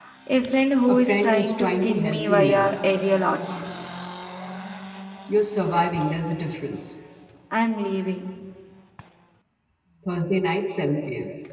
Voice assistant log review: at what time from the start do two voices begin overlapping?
0.9 s

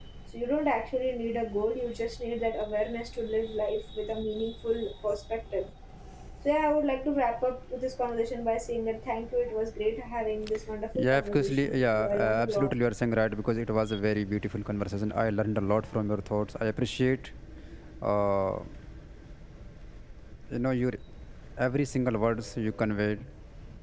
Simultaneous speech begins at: 11.0 s

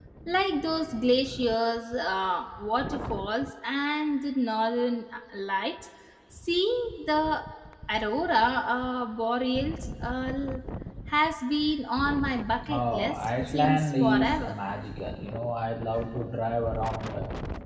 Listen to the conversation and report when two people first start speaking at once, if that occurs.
12.6 s

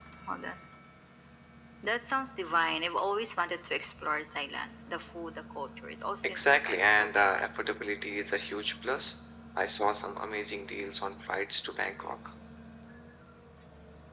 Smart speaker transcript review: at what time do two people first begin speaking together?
6.2 s

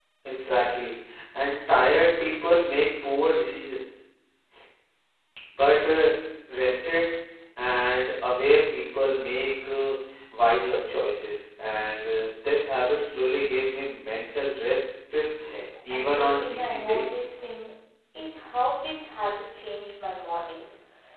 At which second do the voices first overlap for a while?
15.9 s

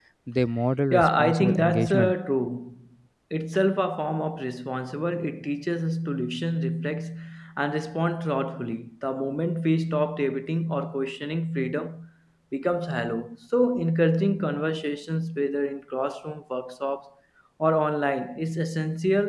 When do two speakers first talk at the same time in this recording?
0.9 s

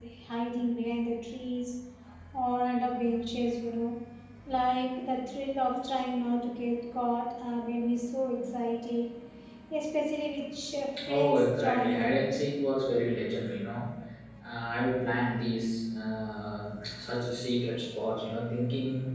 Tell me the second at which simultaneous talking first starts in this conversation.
11.0 s

